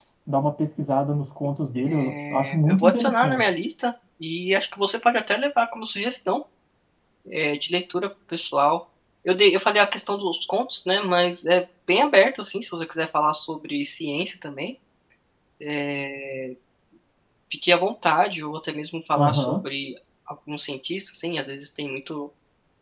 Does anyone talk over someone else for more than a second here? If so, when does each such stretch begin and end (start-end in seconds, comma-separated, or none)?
1.8-3.5